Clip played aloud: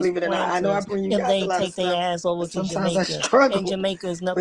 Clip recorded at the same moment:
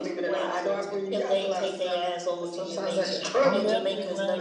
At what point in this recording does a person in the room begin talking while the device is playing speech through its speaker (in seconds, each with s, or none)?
3.4 s